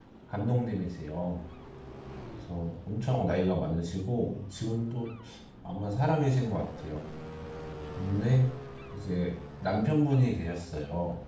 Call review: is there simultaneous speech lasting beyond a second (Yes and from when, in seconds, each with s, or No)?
No